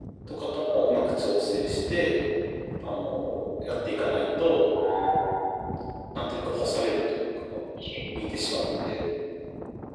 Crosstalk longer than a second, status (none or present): none